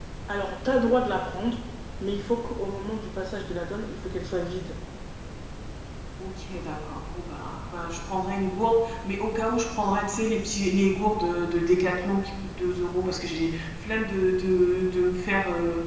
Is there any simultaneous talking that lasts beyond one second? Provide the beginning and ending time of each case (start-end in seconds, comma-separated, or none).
none